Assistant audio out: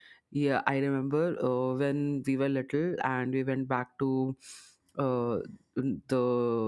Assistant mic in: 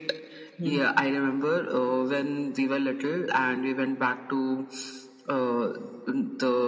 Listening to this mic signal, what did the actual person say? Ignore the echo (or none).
Hmm.